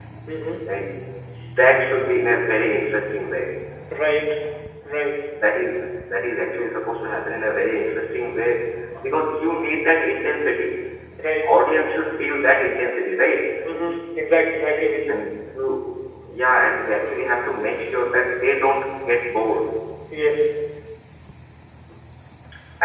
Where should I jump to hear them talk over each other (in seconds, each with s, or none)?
none